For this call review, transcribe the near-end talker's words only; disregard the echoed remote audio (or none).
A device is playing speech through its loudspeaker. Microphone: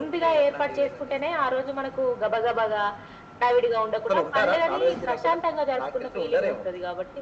none